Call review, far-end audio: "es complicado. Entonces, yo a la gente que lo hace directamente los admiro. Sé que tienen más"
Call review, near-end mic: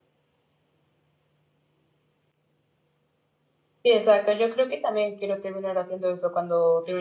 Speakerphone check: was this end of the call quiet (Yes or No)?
No